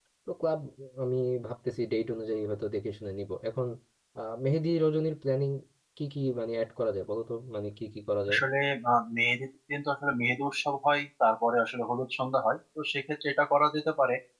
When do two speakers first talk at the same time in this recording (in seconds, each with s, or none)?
none